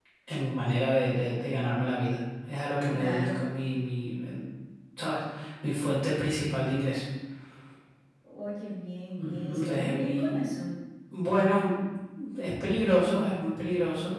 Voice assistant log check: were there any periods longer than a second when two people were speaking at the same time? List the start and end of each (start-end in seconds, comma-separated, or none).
9.2-10.4